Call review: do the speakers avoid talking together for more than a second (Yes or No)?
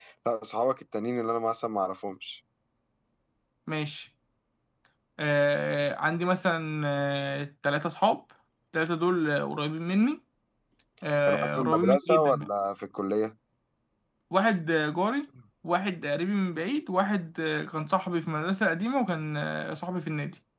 No